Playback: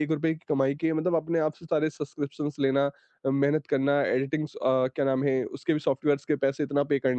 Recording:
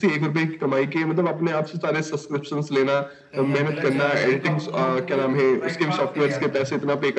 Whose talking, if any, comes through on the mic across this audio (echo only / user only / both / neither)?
both